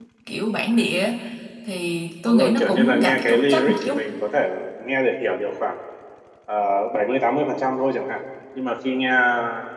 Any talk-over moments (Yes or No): Yes